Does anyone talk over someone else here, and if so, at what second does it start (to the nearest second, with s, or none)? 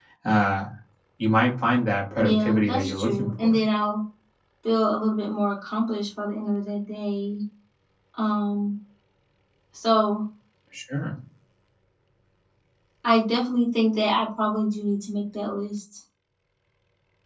2 s